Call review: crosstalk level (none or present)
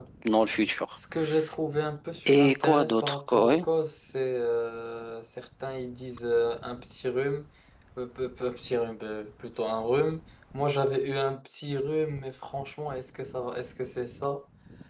present